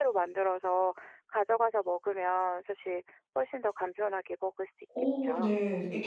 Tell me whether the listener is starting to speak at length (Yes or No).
Yes